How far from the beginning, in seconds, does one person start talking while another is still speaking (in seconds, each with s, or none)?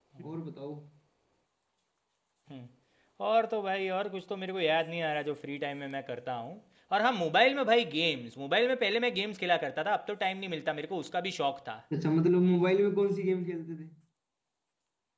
none